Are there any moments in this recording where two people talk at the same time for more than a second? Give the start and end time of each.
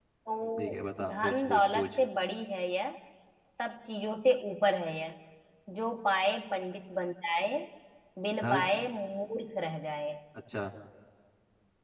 0.6-2.0

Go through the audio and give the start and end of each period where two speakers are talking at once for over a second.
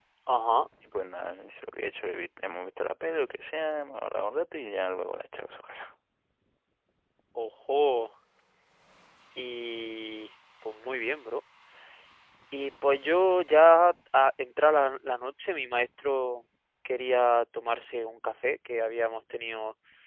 none

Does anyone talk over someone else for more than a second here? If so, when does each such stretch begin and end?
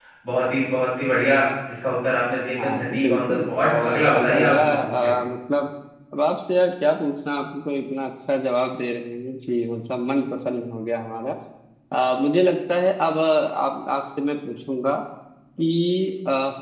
2.6-5.1

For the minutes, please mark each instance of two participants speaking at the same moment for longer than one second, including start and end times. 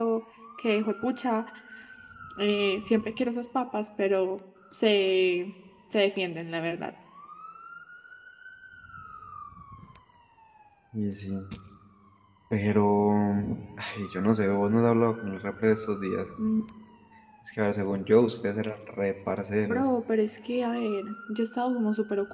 none

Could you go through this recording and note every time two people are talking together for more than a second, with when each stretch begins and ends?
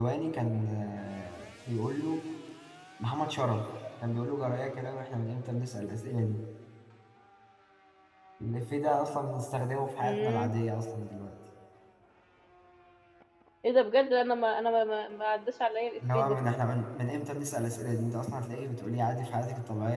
none

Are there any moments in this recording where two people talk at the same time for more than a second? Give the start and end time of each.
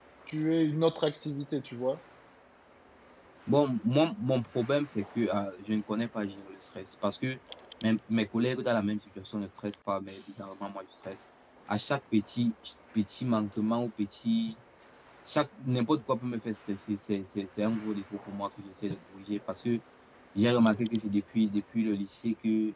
none

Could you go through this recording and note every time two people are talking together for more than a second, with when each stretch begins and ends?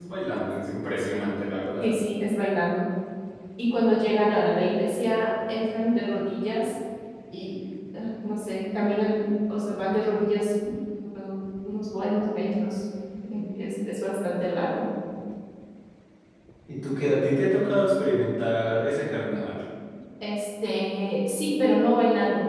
none

